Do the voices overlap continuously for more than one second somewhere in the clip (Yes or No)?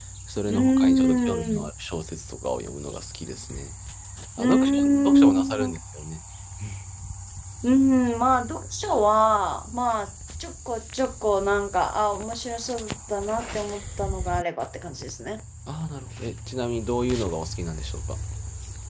Yes